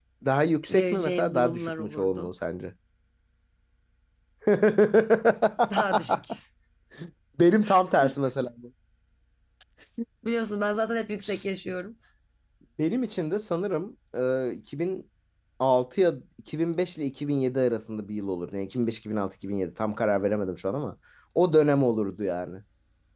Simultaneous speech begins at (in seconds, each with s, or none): 0.7 s